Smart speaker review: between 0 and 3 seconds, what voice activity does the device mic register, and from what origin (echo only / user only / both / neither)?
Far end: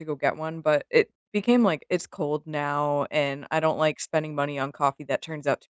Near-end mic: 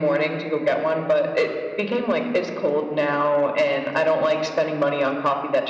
echo only